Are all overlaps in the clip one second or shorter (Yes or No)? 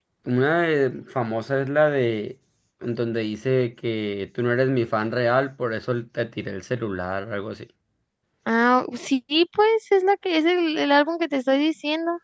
Yes